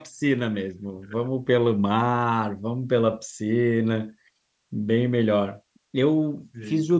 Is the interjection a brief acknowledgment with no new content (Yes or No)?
Yes